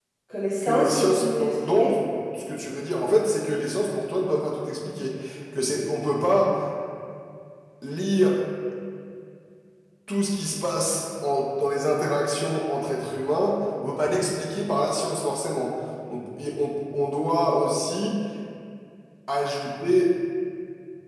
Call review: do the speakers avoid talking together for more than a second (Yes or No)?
No